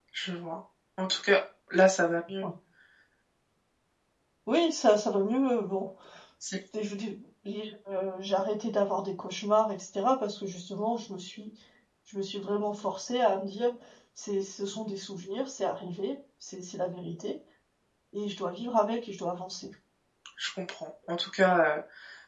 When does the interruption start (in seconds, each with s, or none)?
none